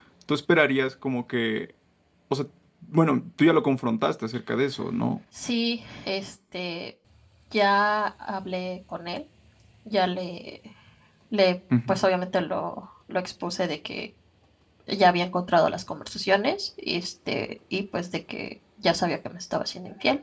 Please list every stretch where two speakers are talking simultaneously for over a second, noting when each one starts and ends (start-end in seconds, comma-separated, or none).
none